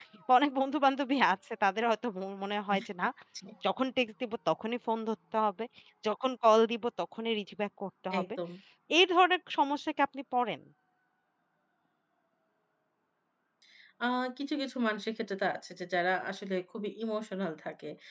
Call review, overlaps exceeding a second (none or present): none